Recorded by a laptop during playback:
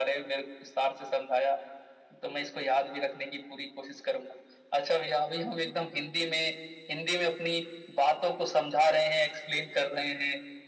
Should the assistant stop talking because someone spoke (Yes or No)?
No